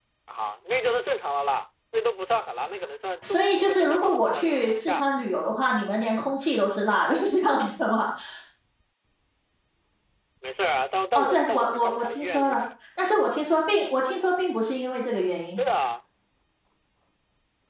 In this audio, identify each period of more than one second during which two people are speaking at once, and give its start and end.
3.2-5.0, 11.2-12.6

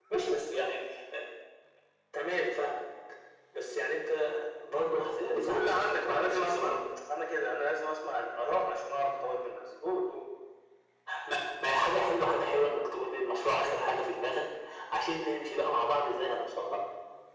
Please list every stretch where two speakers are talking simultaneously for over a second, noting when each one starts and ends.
5.2-6.7

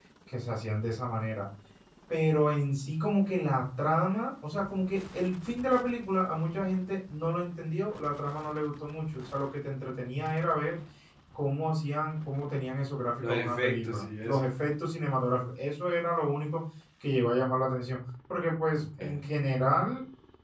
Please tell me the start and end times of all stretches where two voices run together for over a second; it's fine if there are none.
13.2-14.5

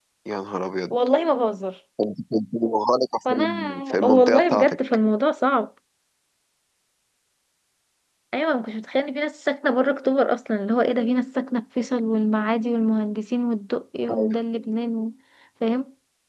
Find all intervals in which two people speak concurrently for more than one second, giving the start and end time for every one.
3.3-4.8

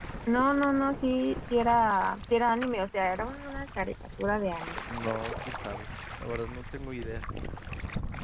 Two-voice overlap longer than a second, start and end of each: none

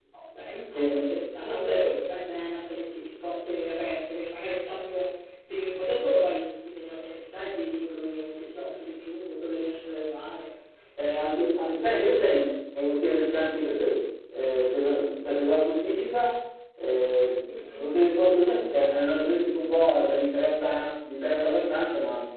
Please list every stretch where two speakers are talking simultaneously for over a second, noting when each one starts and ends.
none

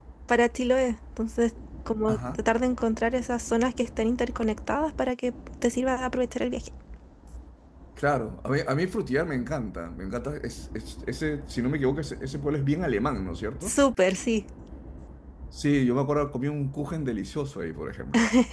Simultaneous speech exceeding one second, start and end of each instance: none

